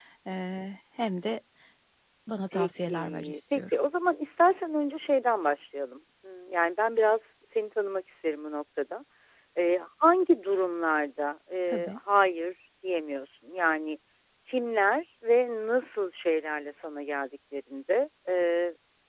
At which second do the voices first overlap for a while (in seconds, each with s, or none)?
2.5 s